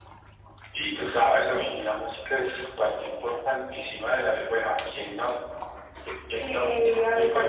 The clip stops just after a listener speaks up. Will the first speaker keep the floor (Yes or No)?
No